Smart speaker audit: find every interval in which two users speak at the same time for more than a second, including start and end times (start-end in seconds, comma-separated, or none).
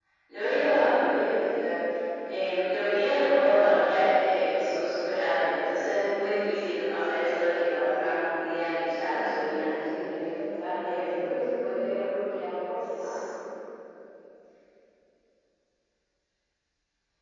7.8-9.9